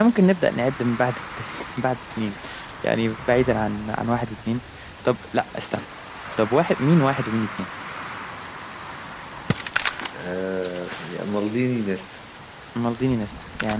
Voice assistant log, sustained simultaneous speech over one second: none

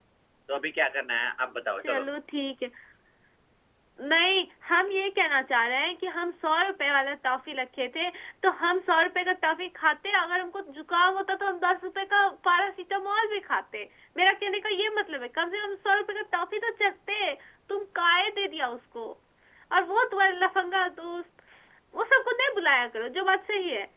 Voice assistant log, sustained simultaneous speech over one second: none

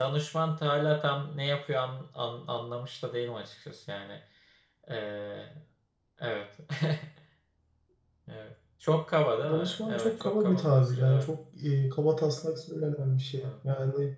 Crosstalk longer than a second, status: present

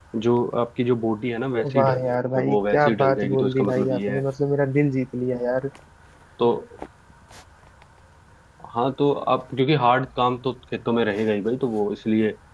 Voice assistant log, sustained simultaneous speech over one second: present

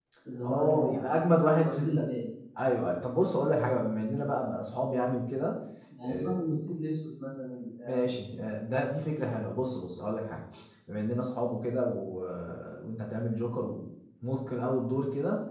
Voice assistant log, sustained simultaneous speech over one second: present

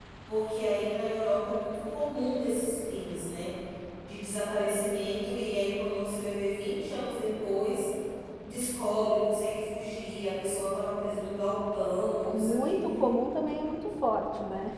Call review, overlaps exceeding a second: none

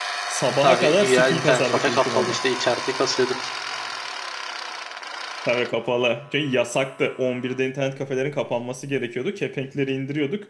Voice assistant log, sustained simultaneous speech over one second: present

